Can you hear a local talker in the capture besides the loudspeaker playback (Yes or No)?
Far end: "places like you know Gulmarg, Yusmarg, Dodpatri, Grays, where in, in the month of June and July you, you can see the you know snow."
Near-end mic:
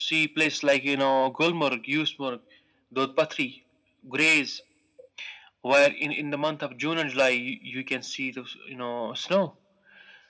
No